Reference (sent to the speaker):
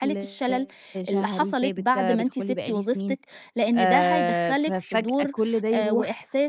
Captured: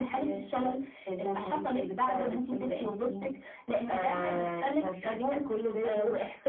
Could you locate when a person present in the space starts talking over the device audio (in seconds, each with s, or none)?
none